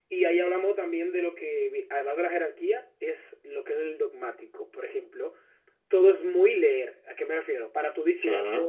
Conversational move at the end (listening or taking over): listening